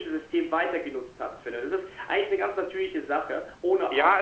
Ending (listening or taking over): taking over